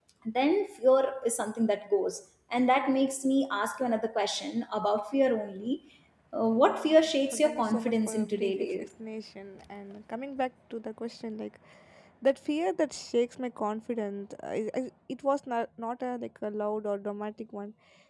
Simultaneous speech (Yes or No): Yes